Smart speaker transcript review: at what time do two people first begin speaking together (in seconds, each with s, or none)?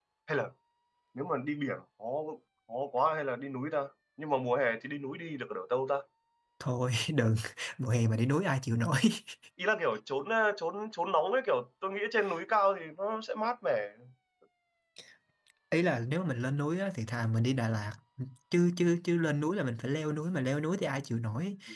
none